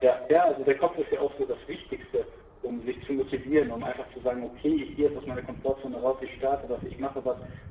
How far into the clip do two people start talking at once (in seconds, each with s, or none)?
none